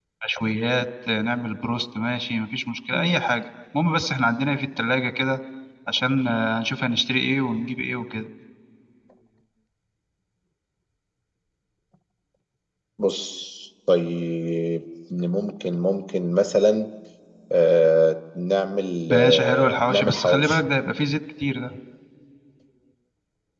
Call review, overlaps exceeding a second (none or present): present